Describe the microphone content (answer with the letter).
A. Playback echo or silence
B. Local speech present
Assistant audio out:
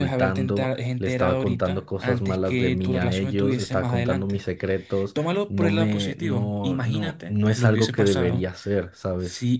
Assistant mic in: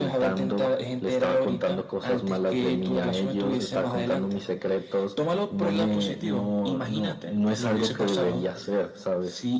A